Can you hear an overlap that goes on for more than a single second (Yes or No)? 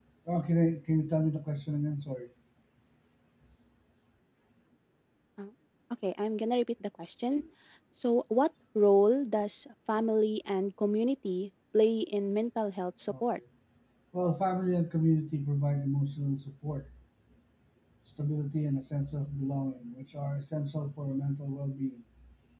No